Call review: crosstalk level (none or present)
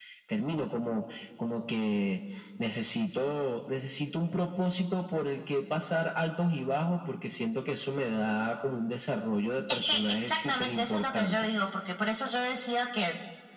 present